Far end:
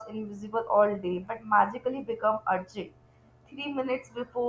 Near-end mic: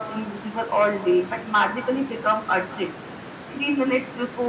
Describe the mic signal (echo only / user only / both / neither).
echo only